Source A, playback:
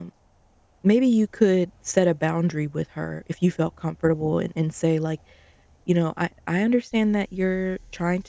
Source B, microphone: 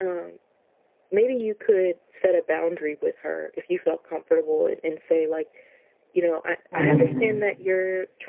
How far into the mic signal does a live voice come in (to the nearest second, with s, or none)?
7 s